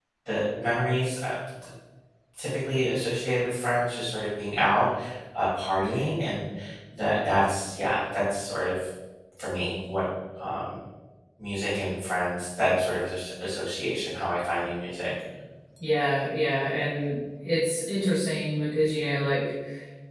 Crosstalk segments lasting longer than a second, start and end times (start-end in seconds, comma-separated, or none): none